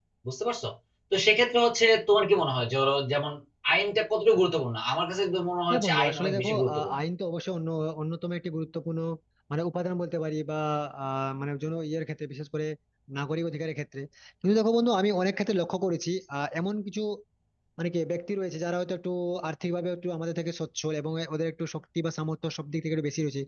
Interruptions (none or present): present